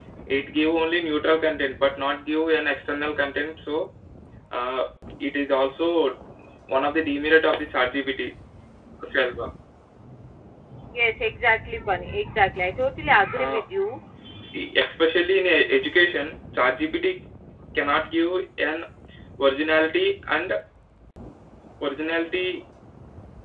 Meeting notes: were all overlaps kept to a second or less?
Yes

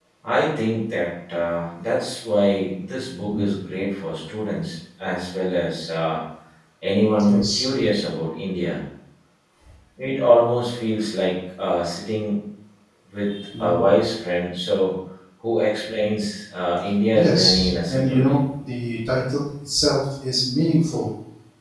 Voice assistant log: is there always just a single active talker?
No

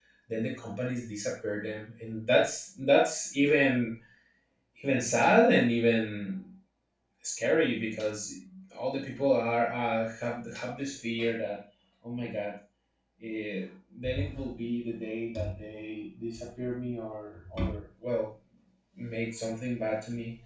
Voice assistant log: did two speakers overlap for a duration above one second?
No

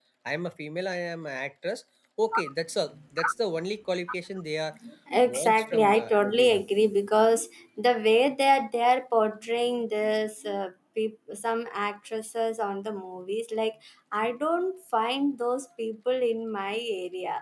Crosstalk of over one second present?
Yes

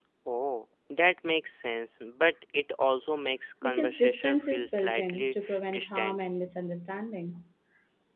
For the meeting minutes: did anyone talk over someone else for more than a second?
Yes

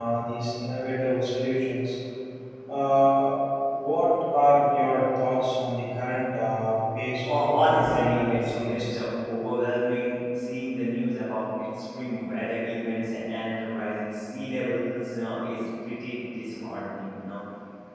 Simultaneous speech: Yes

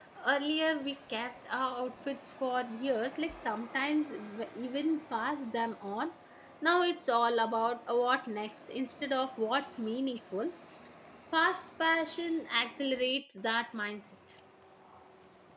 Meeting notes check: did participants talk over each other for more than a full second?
No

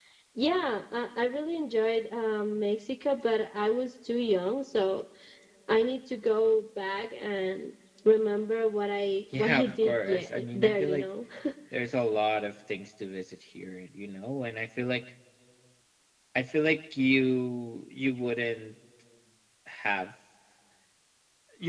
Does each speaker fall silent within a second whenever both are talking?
No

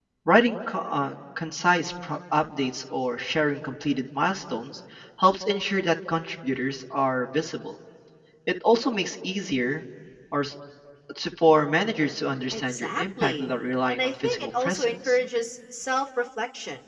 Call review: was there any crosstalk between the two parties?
Yes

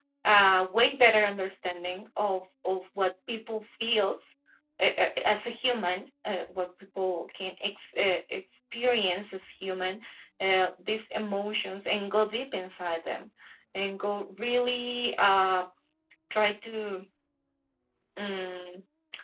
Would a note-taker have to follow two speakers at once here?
No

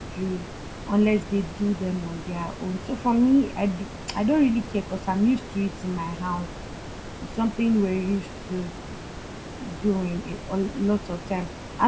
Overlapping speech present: No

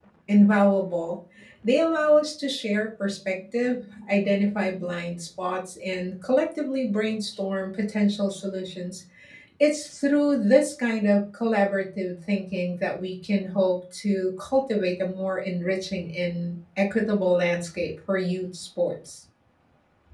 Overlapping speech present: No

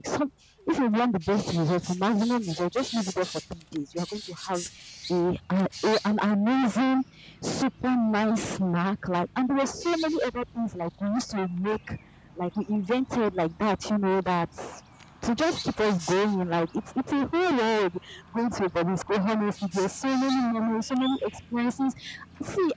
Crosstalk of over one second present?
No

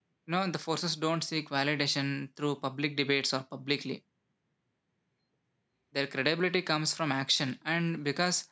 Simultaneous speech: No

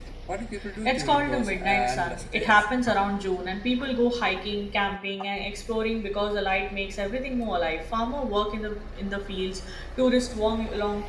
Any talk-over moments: Yes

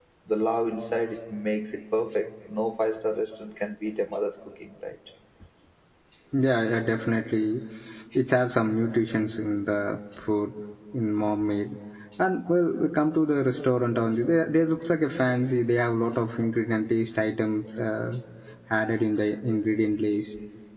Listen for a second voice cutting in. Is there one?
No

